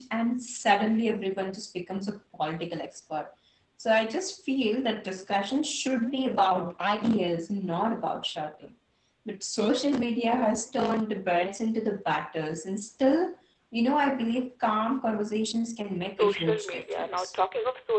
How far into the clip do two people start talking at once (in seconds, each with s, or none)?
16.0 s